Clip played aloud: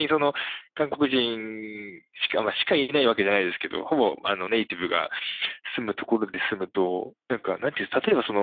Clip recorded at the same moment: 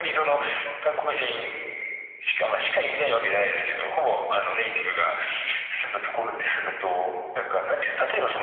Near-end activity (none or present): none